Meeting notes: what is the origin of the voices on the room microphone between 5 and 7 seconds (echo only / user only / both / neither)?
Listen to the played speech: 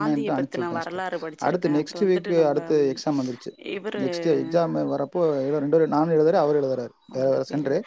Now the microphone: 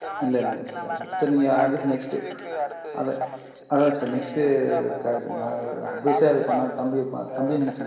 both